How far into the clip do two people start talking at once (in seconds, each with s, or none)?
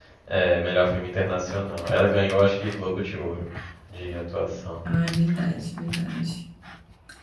none